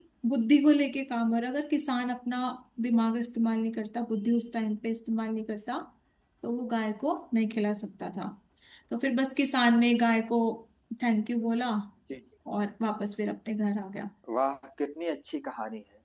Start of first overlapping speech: none

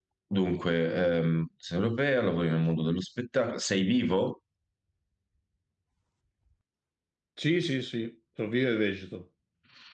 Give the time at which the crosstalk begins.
none

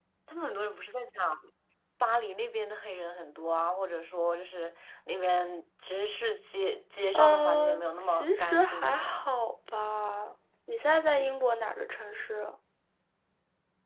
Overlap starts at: 7.1 s

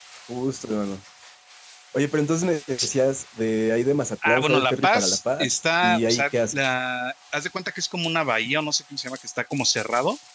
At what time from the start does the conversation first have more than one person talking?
4.2 s

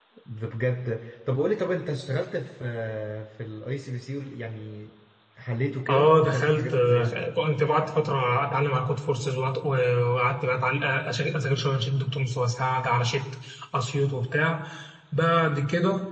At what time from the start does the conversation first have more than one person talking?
5.9 s

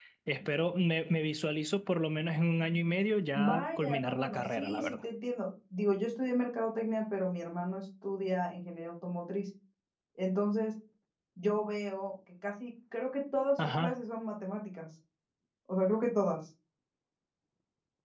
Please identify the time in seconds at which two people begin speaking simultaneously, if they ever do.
3.4 s

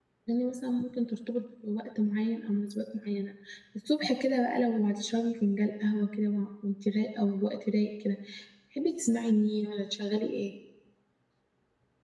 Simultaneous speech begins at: none

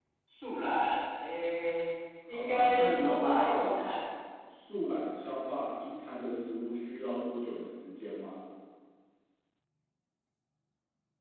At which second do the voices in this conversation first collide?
2.3 s

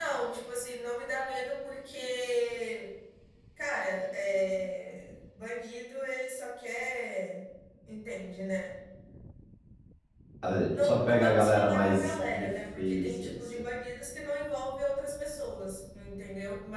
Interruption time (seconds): 10.7 s

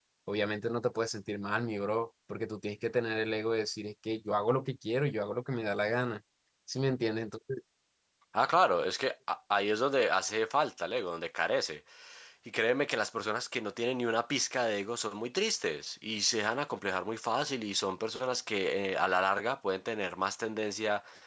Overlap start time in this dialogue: none

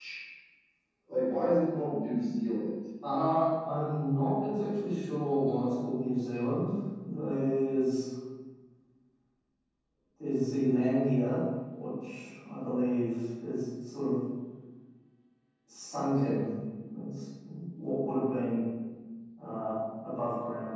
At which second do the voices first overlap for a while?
none

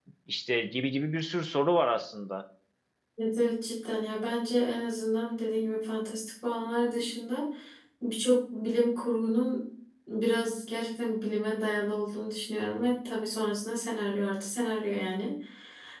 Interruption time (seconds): none

